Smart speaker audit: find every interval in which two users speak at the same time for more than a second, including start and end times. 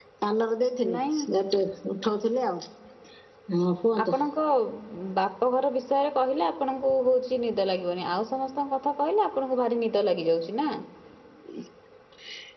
none

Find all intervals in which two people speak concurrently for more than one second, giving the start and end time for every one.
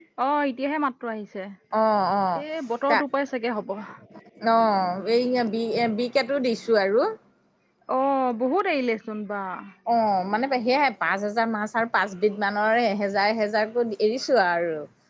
none

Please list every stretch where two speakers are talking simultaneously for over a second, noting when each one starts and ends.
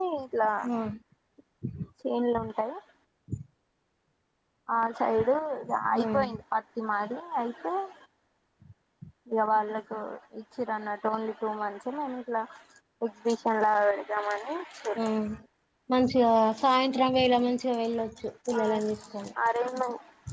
none

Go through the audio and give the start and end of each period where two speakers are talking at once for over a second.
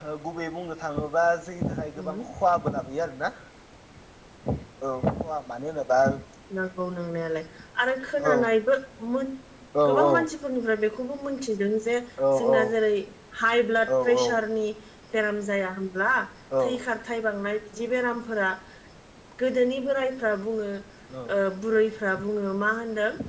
none

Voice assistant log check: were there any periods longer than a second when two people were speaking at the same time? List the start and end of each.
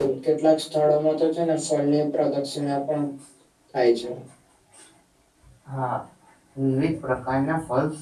none

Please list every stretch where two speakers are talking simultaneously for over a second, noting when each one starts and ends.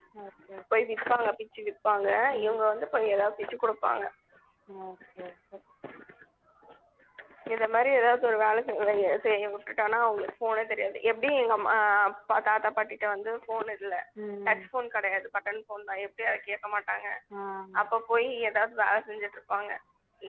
none

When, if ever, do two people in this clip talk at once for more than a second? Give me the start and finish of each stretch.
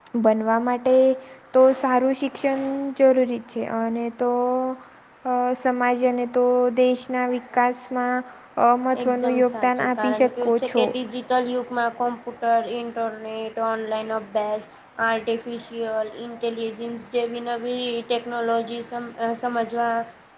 9.0-10.8

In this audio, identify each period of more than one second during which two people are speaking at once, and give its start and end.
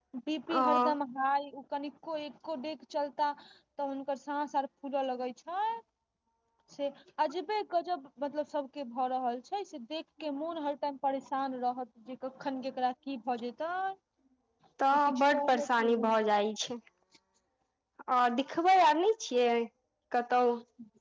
14.9-16.2

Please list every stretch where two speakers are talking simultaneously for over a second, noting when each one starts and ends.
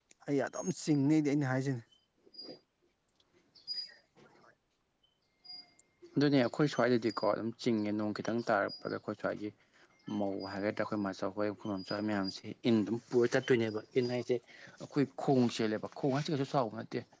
none

